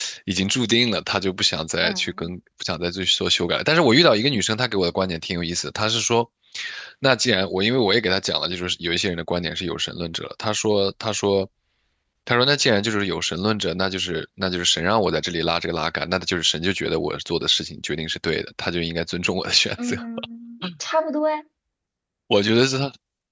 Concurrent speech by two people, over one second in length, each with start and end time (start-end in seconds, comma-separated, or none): none